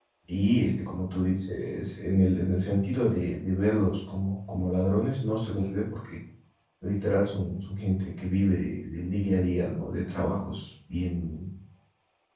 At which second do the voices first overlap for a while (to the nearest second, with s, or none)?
none